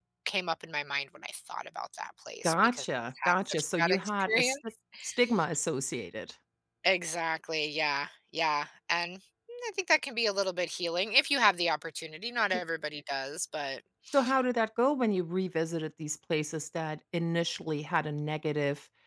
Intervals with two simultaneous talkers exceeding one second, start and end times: 3.2-4.6

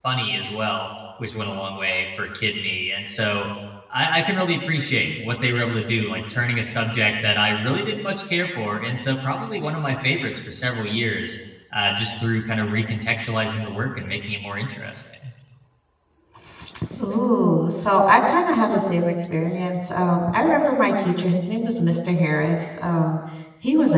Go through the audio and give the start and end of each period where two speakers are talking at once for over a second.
none

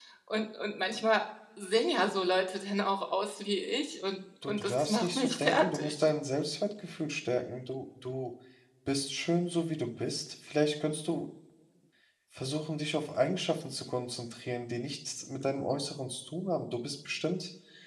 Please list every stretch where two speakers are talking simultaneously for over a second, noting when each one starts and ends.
4.4-5.9

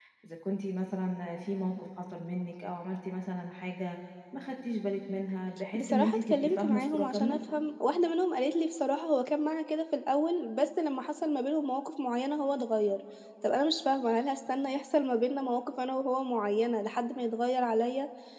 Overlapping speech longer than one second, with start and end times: 5.7-7.4

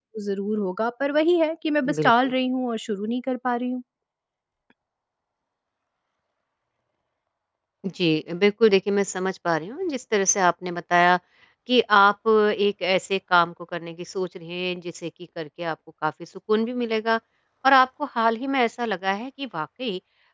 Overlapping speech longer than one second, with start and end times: none

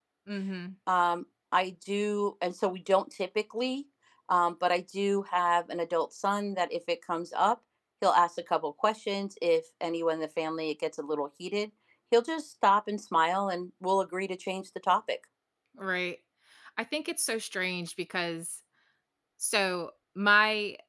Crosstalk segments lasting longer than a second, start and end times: none

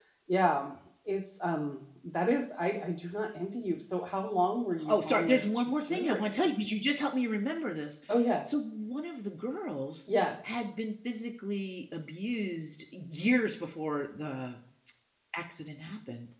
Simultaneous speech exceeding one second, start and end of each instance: 4.9-6.5

